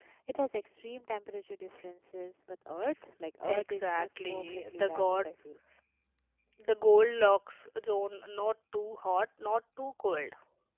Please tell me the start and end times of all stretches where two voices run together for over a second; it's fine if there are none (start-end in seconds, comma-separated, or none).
3.5-5.3